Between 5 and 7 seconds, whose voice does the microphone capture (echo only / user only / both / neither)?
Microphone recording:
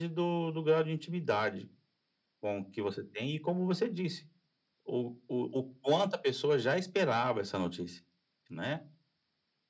echo only